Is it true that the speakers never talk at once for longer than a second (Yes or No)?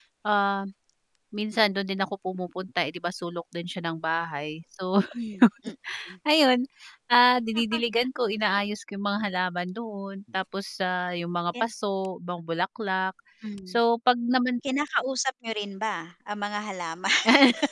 Yes